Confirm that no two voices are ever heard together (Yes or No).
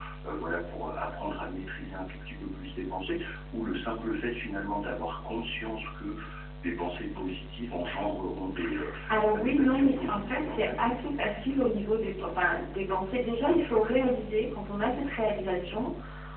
No